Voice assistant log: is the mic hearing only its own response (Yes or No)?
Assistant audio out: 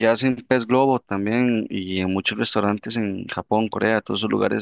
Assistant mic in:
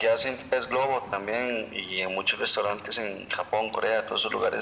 Yes